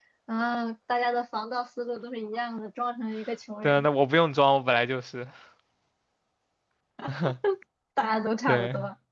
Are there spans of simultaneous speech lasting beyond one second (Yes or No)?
No